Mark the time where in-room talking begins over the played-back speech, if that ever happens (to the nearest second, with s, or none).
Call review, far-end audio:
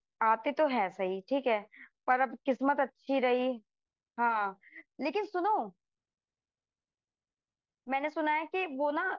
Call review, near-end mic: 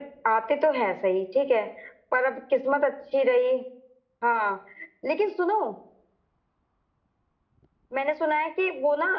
none